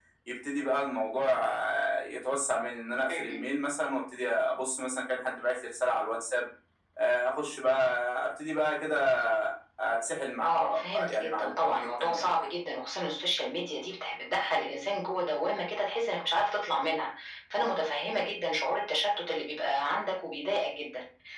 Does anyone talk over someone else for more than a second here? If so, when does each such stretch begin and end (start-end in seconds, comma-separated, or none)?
10.4-12.3